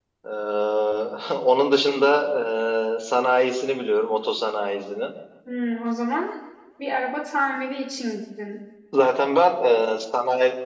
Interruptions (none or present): none